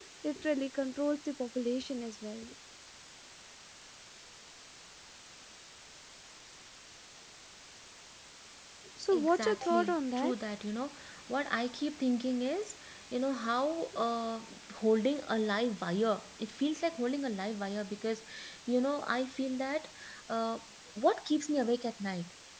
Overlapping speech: Yes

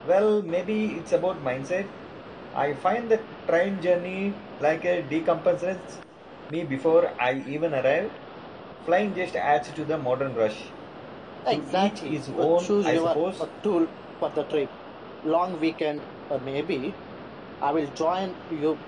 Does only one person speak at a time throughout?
No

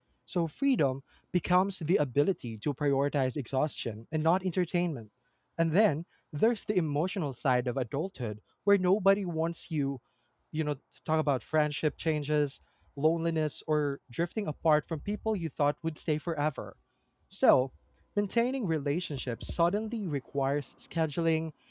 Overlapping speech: No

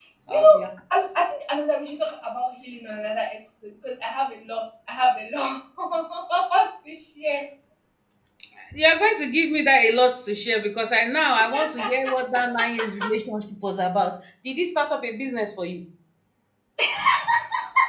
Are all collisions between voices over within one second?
Yes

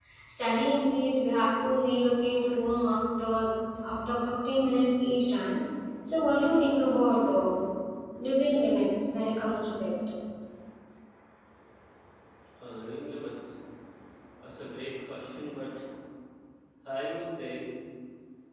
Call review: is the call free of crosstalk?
Yes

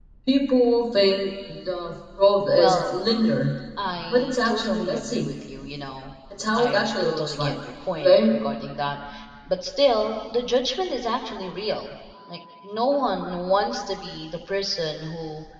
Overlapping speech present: Yes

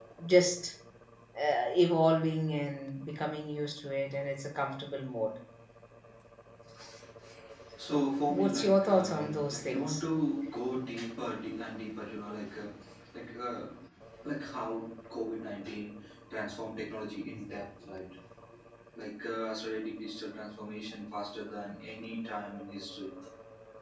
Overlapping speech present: Yes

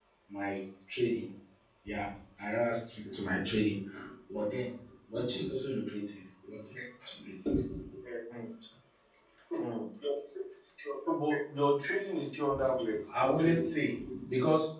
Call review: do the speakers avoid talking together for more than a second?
Yes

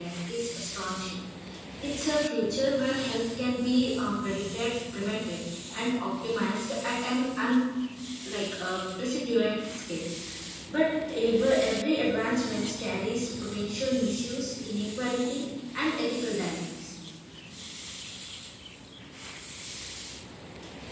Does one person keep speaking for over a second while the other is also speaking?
No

